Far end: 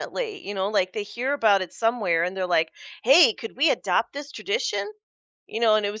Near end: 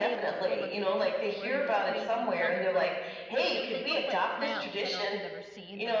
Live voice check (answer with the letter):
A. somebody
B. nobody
A